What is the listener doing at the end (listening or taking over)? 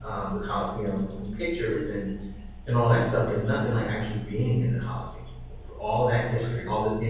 listening